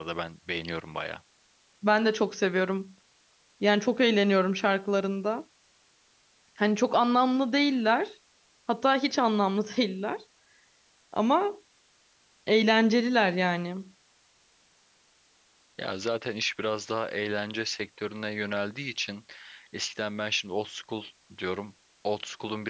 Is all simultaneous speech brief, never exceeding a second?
Yes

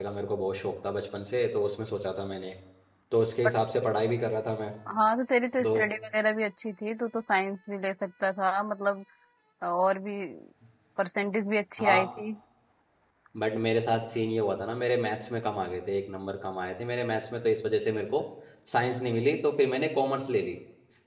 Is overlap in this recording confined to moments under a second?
Yes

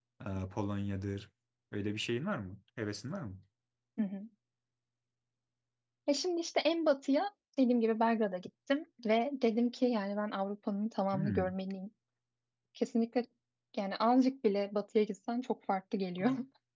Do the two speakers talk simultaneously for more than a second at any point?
No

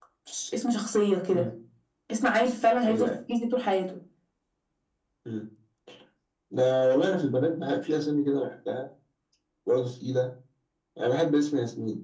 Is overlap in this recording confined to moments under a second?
Yes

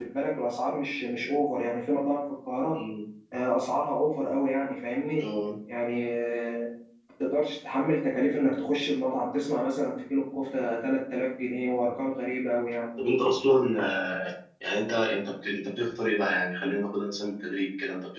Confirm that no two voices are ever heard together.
Yes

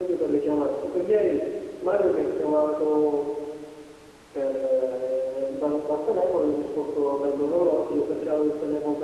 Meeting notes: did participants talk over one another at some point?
No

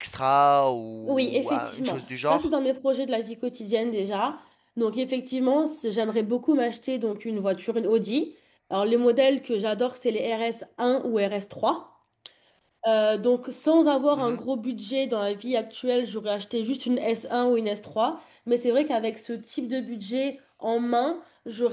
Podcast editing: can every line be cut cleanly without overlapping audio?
No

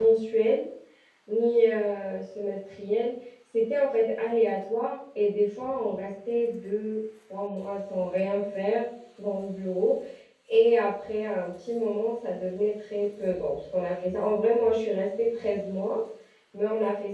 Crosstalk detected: No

